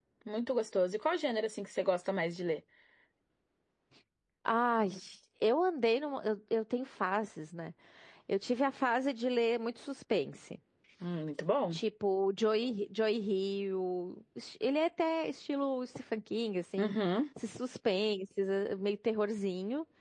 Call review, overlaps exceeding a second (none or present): none